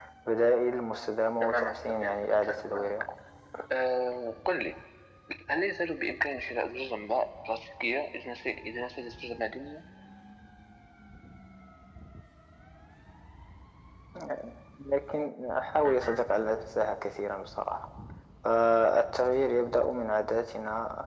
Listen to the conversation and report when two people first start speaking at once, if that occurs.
1.4 s

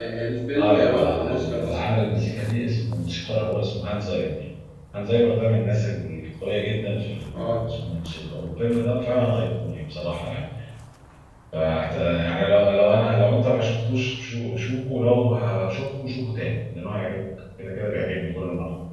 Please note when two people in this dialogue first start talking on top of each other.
0.6 s

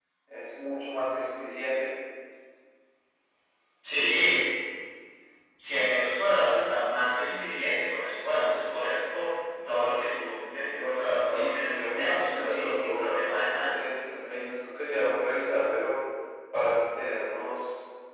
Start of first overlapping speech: 11.3 s

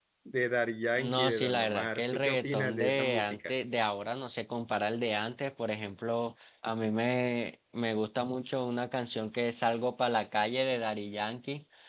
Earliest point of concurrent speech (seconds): 1.0 s

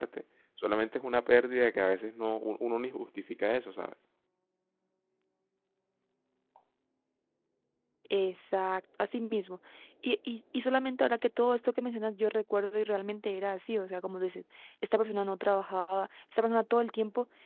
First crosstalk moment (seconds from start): none

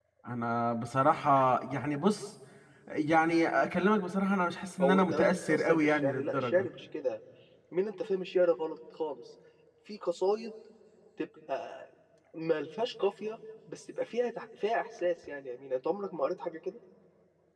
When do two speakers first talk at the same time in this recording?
4.8 s

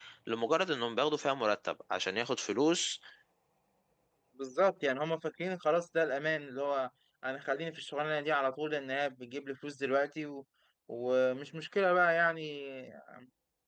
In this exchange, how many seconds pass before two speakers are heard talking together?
none

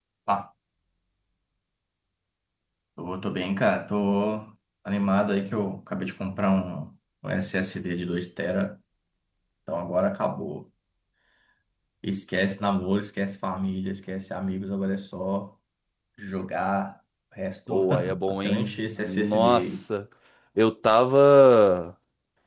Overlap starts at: 17.7 s

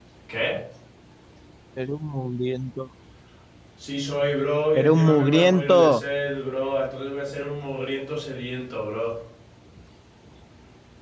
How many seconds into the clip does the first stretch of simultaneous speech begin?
4.7 s

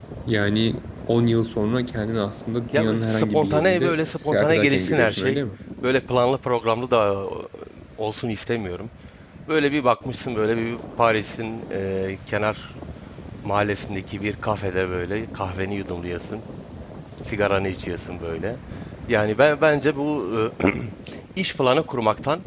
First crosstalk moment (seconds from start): 2.7 s

